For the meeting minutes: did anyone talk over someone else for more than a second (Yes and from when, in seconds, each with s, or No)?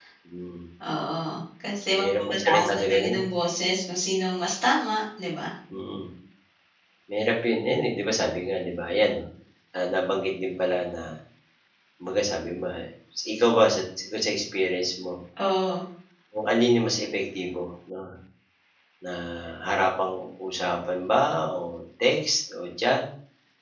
Yes, from 1.9 s